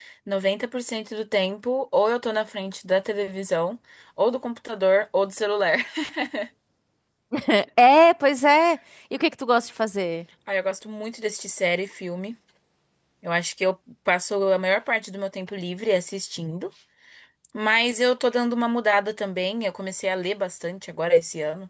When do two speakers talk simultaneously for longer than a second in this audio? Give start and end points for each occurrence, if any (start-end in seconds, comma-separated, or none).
none